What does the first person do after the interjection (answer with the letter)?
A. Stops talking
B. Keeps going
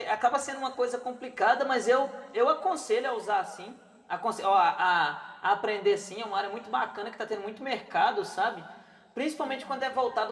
B